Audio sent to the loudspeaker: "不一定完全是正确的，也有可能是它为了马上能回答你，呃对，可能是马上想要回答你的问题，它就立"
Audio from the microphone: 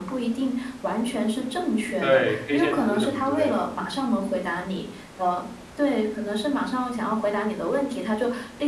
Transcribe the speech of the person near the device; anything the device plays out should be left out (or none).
对，K 线图什么之类的。